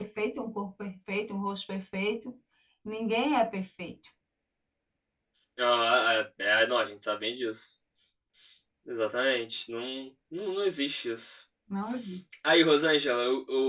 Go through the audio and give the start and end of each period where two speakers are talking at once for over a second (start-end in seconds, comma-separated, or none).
none